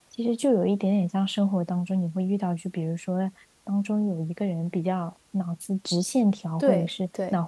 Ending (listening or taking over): listening